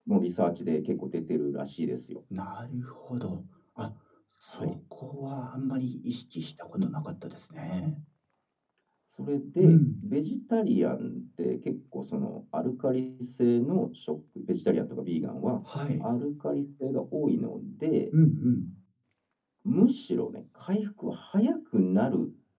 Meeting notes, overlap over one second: none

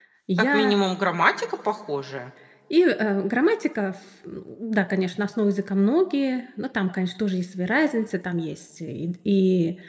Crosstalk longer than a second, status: none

